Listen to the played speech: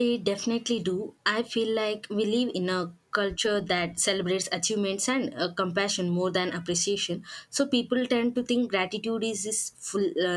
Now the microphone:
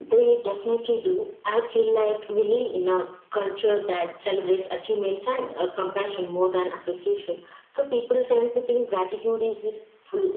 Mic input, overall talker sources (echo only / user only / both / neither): echo only